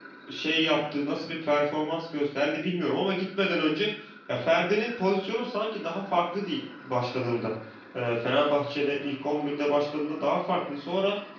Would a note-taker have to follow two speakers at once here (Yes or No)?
No